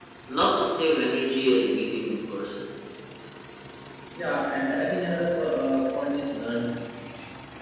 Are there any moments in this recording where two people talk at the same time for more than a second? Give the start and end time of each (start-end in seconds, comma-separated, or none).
none